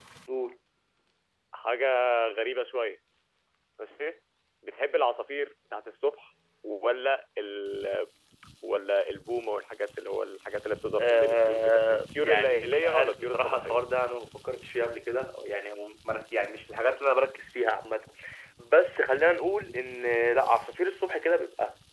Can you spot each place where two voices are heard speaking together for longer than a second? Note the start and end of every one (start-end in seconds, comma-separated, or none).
11.0-13.7